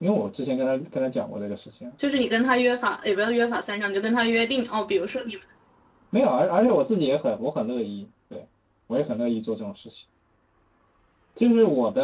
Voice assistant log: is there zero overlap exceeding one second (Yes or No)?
Yes